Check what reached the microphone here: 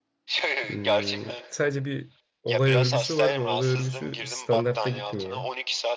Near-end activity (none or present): present